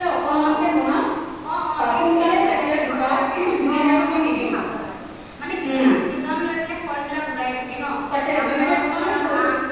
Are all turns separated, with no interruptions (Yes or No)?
No